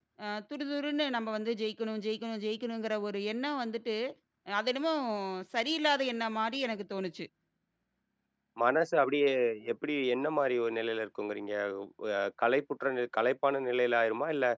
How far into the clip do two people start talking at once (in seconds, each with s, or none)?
none